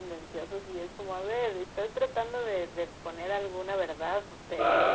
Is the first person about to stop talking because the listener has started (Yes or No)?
No